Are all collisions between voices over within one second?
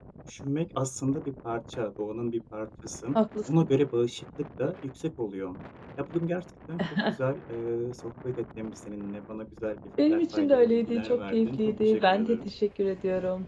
No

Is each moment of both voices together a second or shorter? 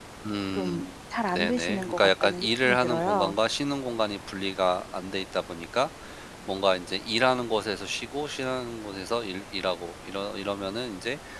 No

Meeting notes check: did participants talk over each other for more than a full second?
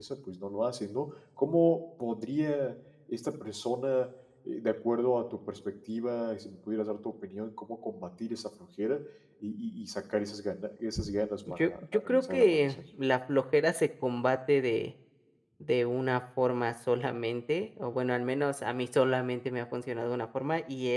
Yes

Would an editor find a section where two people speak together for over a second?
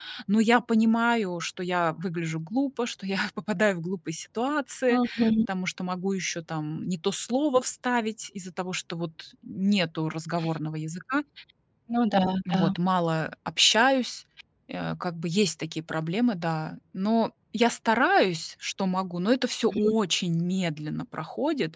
No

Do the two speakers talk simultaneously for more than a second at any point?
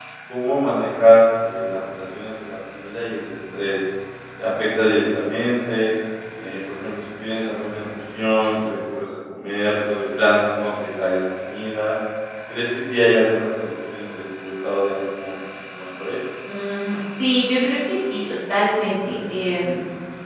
No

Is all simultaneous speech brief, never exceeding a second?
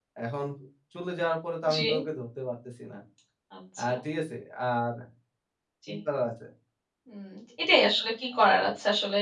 Yes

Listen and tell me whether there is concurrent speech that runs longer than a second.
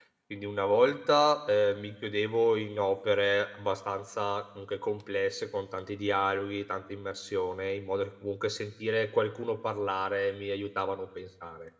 No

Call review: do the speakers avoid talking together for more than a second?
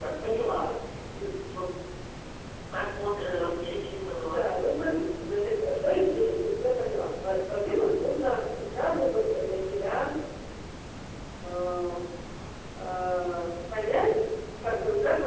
Yes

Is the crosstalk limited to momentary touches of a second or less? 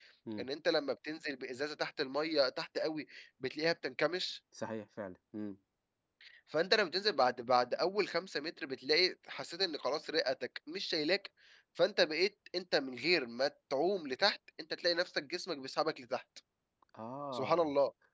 Yes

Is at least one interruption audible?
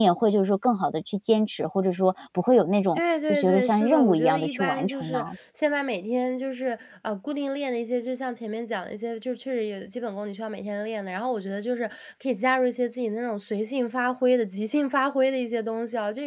Yes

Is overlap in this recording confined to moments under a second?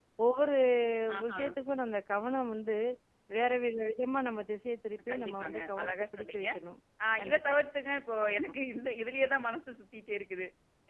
No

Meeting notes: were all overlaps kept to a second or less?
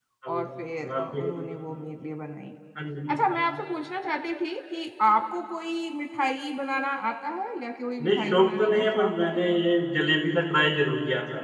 No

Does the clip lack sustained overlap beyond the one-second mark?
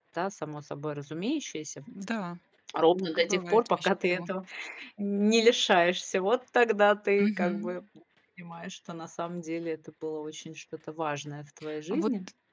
No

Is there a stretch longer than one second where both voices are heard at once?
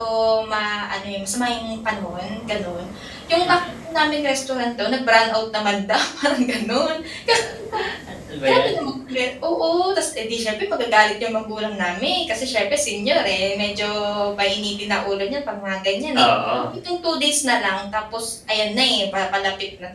No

